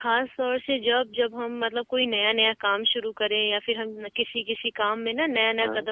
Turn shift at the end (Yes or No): No